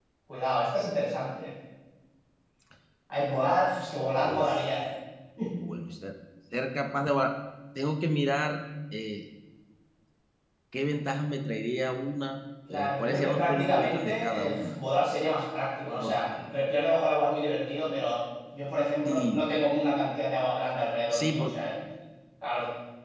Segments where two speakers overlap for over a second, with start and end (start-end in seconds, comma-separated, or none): 12.7-14.8